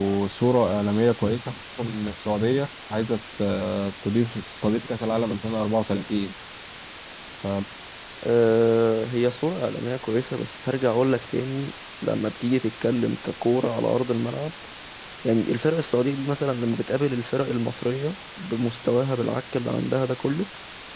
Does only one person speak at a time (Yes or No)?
Yes